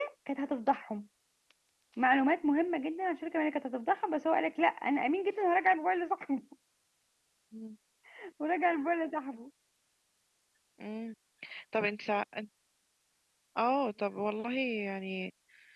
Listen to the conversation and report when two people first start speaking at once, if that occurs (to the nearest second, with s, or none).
none